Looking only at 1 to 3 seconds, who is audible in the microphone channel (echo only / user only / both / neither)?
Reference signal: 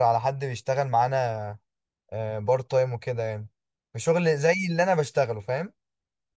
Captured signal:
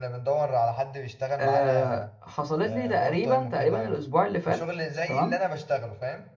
both